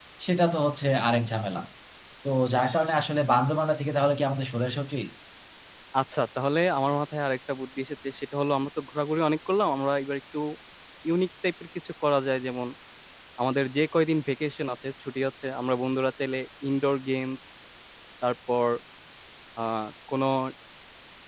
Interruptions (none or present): none